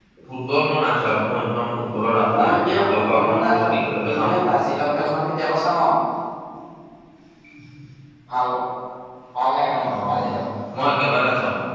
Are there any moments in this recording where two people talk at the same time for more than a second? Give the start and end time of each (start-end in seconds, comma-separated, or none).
2.4-3.7